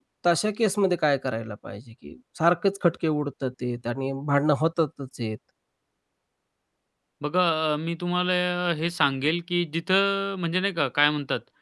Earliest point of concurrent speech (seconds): none

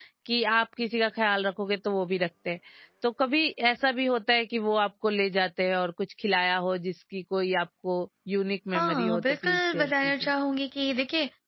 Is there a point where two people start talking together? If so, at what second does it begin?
9 s

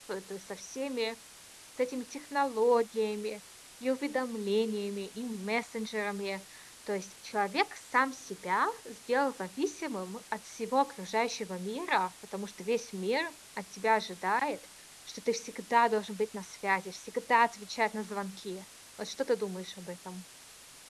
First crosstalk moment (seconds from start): none

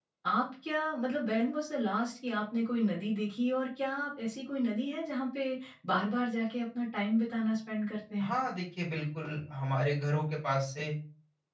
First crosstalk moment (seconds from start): none

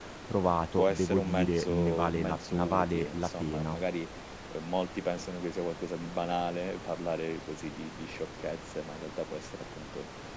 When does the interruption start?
1 s

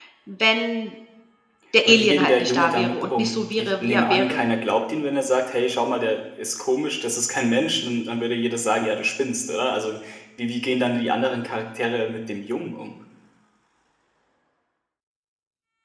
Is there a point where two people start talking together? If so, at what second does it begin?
2 s

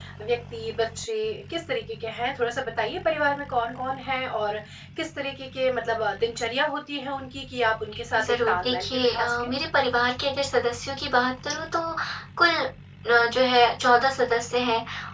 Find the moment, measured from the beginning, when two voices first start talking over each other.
8 s

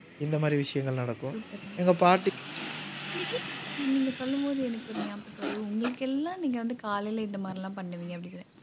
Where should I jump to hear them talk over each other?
none

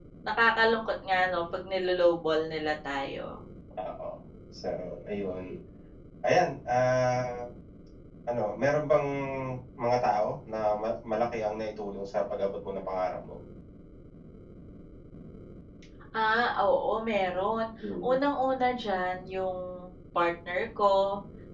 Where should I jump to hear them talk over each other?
none

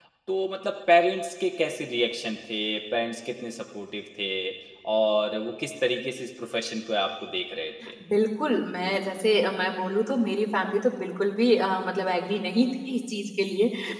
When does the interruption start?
none

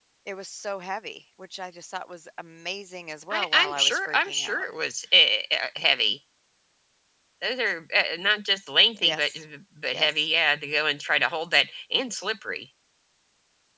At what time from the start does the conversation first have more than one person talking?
3 s

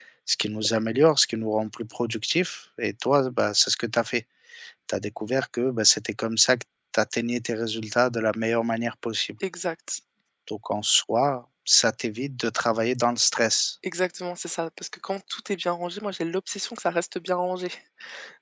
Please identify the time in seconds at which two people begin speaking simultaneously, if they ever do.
none

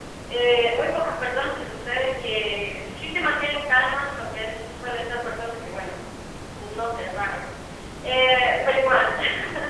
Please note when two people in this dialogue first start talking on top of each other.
none

